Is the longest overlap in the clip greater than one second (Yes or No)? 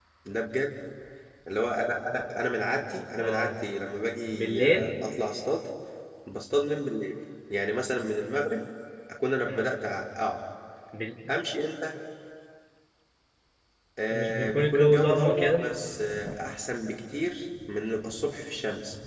Yes